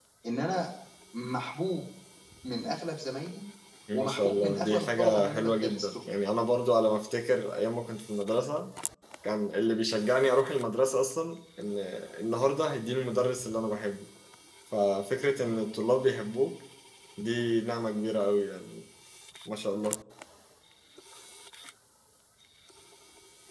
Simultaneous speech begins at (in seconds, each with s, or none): 3.9 s